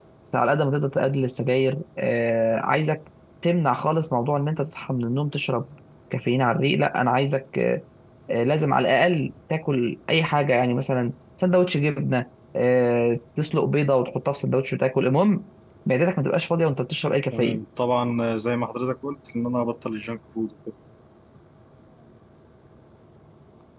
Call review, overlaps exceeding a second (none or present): none